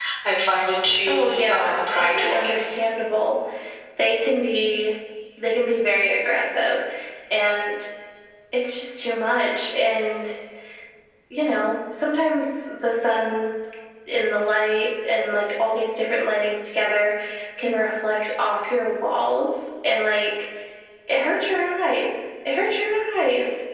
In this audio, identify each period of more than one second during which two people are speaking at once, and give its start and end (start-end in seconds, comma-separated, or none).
1.1-2.5